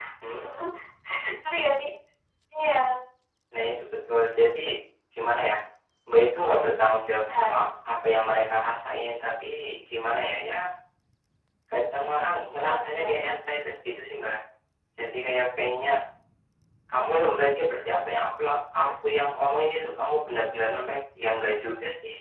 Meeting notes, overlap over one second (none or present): none